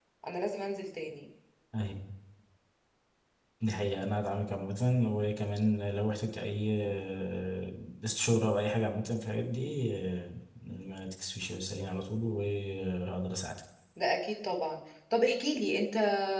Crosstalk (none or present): none